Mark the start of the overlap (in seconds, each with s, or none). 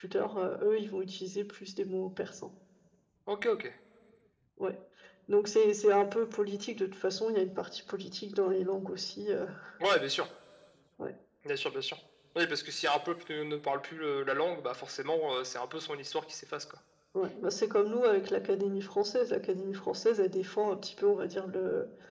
none